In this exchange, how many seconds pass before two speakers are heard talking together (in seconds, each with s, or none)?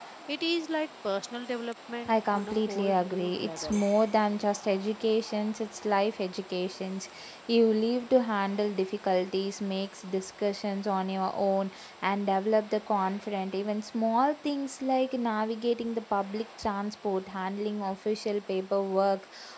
2.0 s